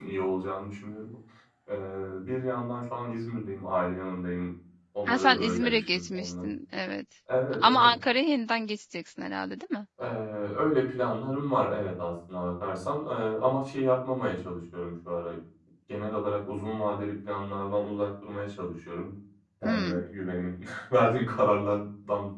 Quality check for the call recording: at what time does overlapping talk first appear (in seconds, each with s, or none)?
5.1 s